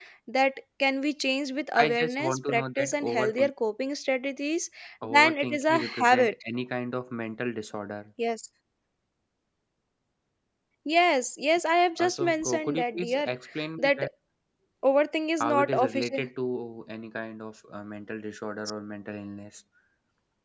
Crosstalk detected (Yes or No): Yes